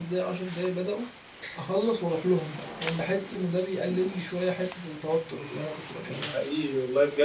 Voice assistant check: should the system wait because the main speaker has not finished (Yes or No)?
No